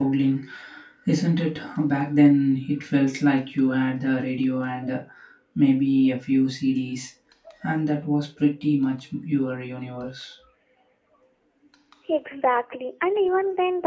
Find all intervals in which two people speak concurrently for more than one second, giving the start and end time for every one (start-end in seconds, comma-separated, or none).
none